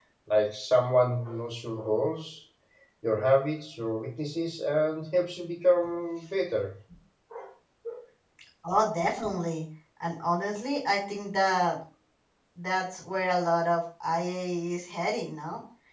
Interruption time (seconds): none

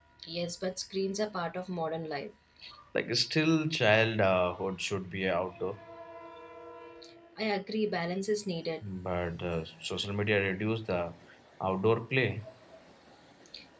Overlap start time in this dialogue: none

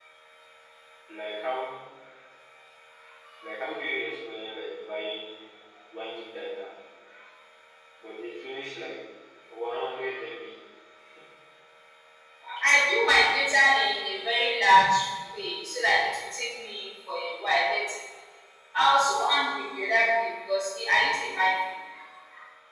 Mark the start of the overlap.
none

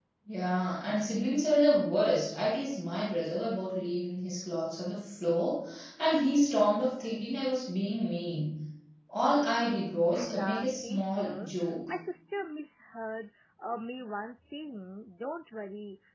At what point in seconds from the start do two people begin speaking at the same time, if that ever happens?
10.1 s

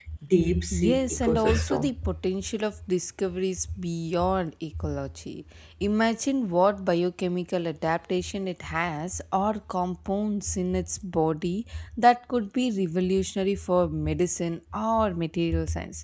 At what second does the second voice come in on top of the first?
0.7 s

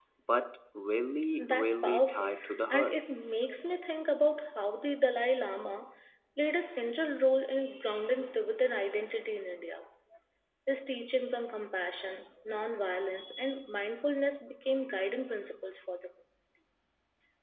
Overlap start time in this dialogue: 1.4 s

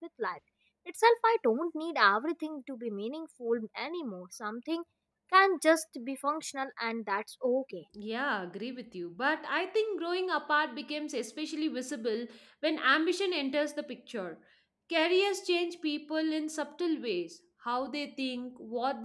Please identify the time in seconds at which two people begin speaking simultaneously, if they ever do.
none

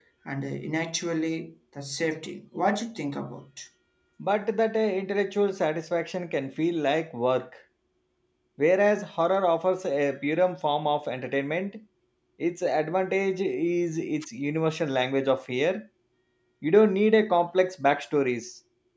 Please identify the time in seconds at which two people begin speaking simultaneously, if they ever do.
none

